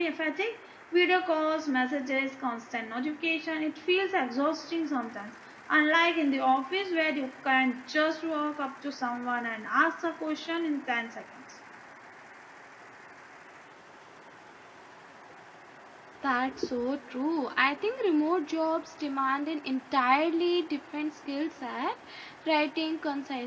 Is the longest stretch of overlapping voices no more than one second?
Yes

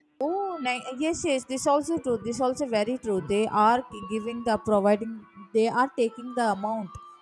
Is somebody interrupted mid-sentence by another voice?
No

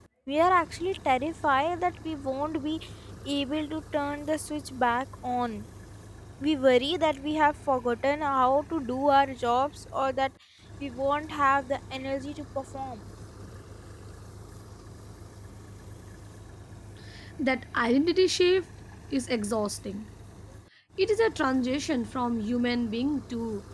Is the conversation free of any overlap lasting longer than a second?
Yes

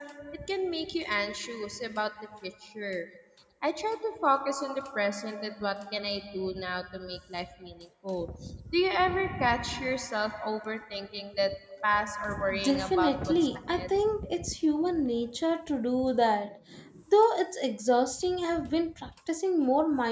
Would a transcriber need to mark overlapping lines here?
Yes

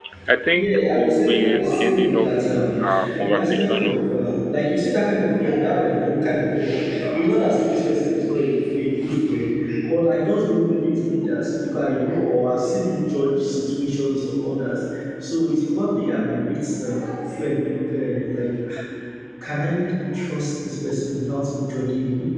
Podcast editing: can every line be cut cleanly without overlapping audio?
No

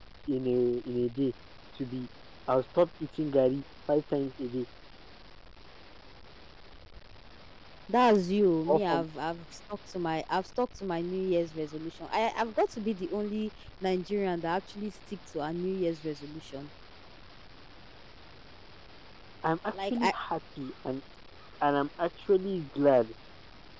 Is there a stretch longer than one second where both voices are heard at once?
No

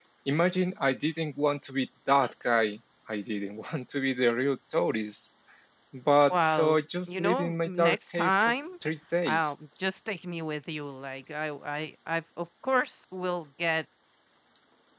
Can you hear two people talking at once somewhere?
Yes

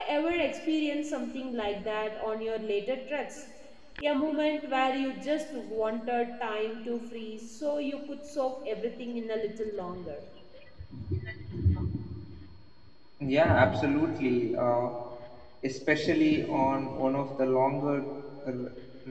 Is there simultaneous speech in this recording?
No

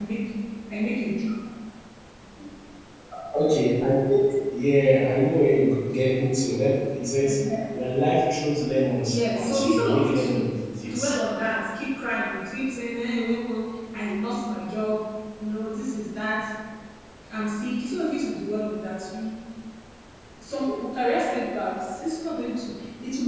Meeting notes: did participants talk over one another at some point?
Yes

